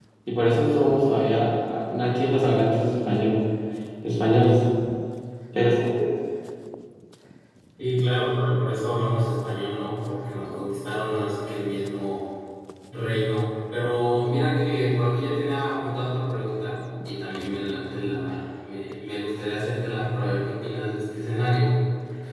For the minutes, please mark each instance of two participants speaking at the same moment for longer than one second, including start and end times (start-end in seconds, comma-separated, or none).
none